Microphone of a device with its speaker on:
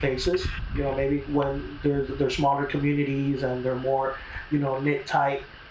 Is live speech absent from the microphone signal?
No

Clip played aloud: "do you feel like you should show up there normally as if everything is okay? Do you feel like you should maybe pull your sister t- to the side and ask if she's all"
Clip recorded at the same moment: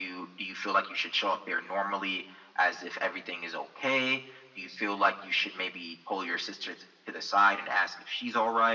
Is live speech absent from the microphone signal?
Yes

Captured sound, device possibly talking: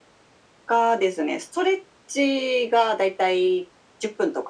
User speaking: No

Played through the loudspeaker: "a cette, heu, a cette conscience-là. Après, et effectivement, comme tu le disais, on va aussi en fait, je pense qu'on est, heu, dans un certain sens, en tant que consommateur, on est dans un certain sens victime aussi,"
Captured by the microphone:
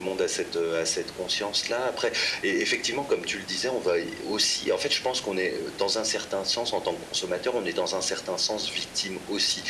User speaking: No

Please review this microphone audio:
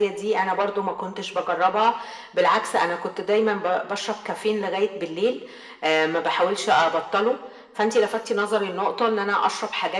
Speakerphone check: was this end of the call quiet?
Yes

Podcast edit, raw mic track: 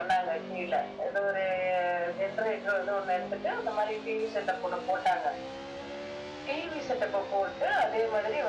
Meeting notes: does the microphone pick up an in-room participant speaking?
No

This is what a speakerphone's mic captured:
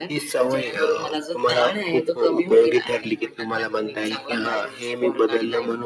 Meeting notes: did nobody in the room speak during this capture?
Yes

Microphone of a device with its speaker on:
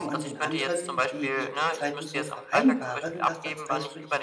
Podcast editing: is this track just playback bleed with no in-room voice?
No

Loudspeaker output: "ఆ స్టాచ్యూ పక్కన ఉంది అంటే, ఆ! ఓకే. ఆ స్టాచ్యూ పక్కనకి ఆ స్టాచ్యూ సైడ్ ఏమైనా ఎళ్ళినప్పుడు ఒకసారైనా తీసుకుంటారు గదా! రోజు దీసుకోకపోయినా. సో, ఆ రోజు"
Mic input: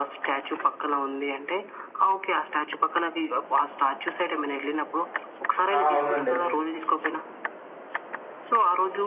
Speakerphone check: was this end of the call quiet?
No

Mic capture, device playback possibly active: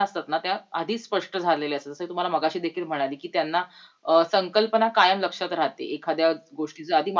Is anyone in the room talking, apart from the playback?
No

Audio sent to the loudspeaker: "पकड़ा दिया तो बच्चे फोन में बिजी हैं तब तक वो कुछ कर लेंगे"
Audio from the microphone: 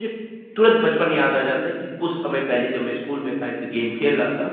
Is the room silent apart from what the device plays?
No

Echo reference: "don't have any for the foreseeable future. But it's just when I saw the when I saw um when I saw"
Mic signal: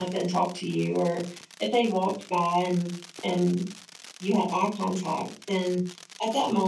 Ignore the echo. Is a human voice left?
Yes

